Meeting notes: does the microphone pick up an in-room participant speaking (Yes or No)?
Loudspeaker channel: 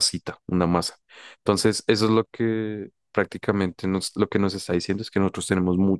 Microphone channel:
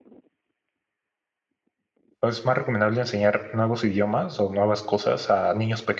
Yes